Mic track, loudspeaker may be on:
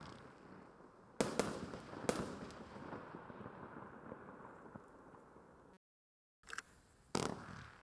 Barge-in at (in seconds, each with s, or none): none